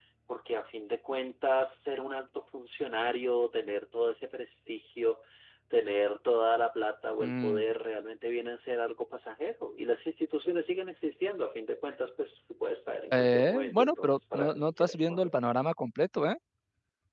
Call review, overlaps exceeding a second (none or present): present